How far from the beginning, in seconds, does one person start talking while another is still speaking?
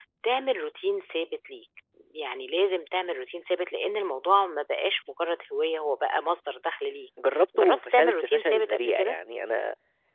8 s

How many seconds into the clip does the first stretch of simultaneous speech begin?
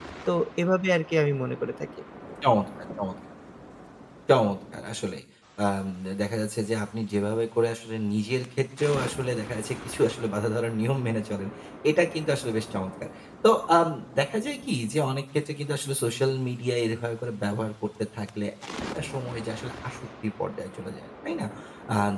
none

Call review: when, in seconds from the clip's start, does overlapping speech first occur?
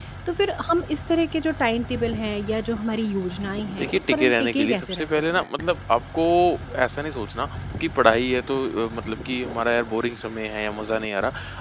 4 s

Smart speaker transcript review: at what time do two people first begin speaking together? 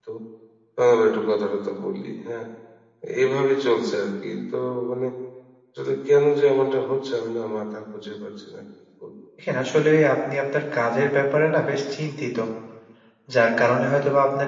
none

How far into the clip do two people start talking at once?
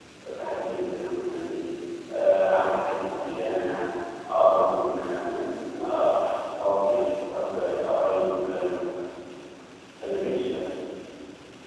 none

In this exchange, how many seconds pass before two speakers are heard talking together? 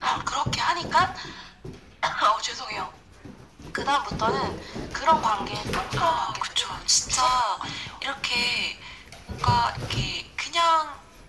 6 s

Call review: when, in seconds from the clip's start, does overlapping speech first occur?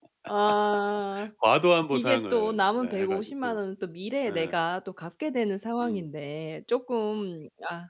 2 s

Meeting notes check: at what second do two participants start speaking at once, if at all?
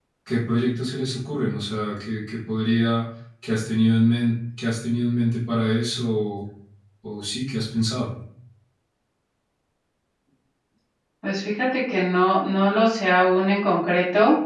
none

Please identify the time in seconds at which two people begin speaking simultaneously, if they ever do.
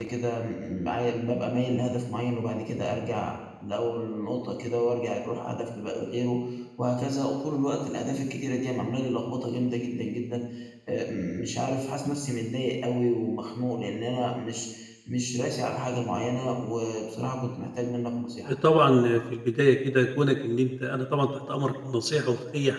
none

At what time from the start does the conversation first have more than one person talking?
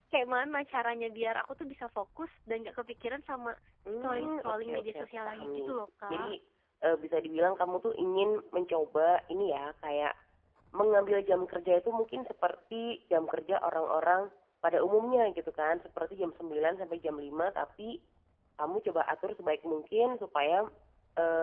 4 s

